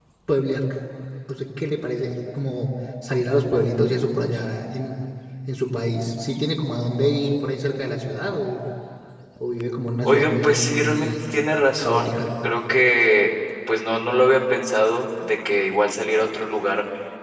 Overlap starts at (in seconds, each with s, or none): 10.0 s